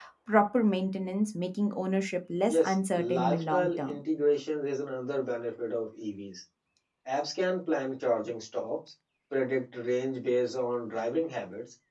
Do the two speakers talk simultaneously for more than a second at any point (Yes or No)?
Yes